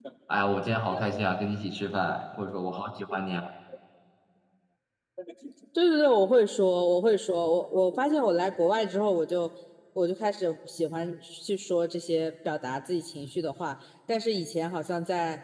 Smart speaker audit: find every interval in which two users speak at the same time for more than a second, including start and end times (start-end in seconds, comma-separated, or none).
none